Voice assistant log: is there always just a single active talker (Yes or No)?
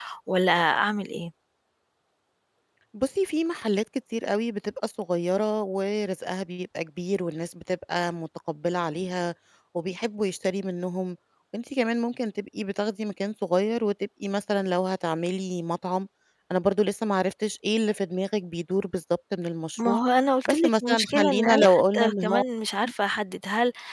No